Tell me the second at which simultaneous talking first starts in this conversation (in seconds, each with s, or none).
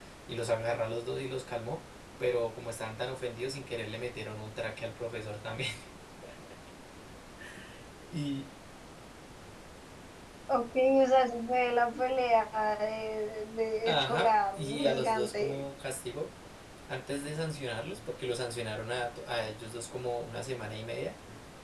13.8 s